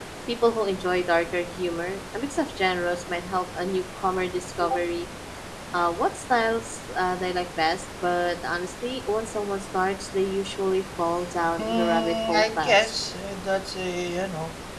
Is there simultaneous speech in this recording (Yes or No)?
Yes